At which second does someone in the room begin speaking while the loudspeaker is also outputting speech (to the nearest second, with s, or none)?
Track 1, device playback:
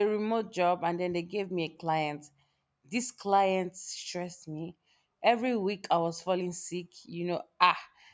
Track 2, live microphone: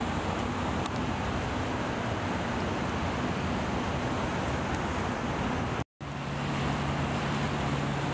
none